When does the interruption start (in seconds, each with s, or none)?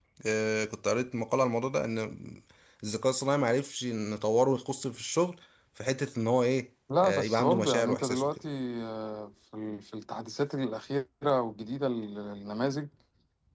6.9 s